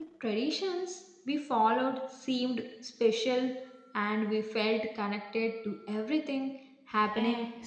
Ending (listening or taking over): taking over